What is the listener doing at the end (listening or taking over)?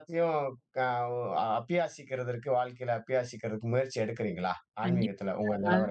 taking over